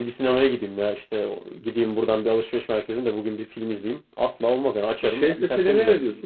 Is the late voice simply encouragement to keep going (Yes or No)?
No